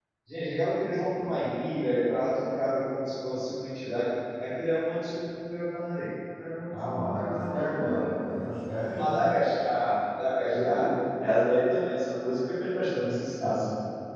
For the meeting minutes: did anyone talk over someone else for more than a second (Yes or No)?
Yes